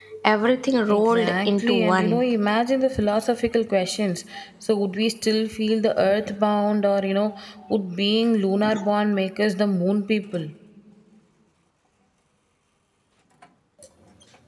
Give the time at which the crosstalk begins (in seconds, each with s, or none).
0.9 s